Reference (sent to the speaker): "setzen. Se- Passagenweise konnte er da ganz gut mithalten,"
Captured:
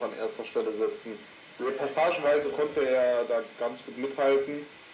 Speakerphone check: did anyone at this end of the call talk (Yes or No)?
Yes